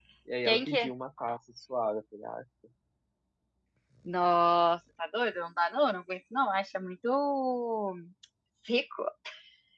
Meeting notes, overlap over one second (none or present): none